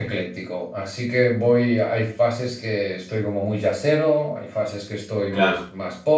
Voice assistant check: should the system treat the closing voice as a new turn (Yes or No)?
No